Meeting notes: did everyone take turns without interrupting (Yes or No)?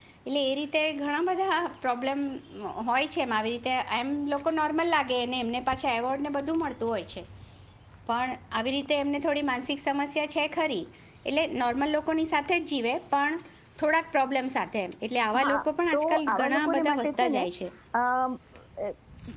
No